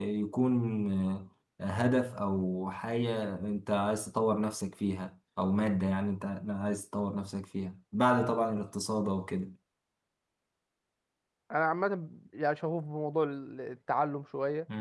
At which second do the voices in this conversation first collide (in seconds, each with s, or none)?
none